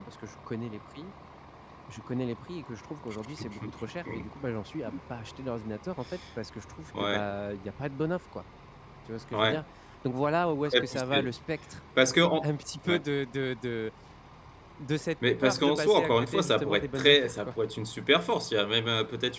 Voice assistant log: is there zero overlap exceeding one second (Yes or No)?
No